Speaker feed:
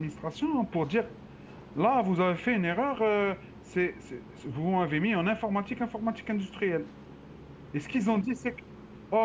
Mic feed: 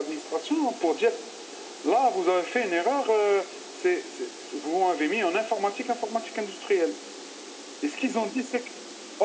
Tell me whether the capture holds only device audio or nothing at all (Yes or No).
Yes